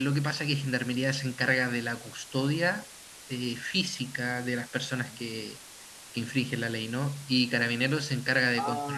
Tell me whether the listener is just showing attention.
No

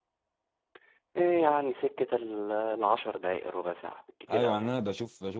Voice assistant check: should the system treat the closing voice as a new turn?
Yes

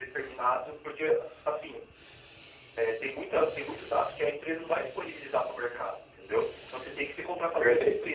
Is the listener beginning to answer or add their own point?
No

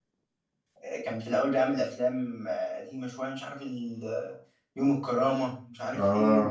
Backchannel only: Yes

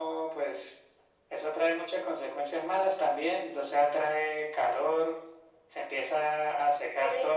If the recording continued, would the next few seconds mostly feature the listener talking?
No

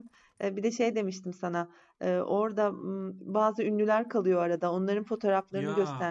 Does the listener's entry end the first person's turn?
No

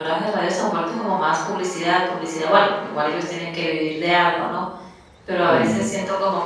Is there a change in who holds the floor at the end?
No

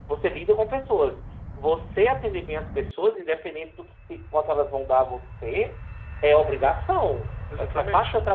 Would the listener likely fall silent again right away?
Yes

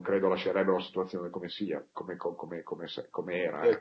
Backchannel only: No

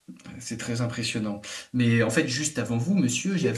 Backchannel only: No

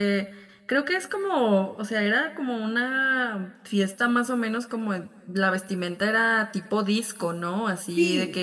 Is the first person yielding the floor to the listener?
No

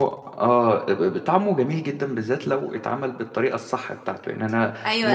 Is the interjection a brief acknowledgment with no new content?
No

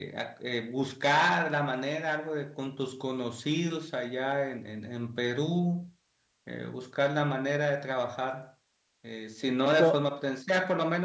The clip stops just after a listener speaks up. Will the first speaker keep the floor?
Yes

